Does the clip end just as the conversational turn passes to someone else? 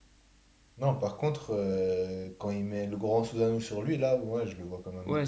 Yes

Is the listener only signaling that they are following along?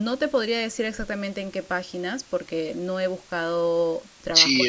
No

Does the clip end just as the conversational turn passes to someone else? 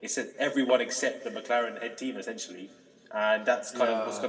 No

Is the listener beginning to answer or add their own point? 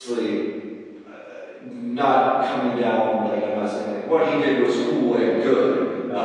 No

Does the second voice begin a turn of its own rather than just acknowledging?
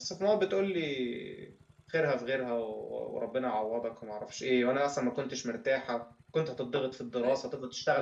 No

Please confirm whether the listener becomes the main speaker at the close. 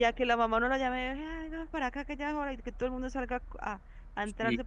Yes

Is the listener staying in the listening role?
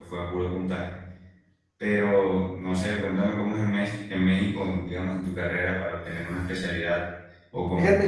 No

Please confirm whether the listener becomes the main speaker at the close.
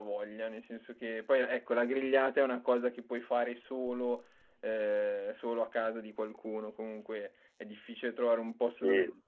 No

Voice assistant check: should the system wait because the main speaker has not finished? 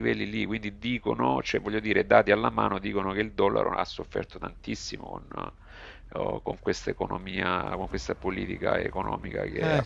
Yes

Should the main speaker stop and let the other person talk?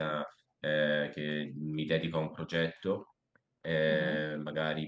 No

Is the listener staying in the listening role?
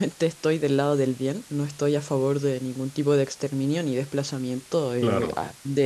Yes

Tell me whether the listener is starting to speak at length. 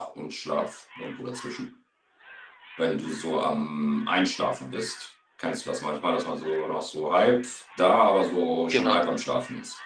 No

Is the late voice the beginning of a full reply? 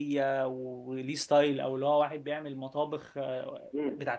Yes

